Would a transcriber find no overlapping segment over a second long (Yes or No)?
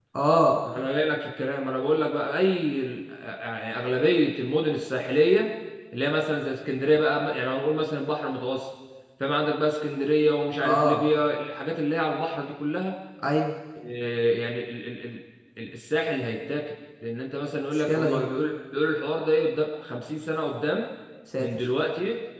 Yes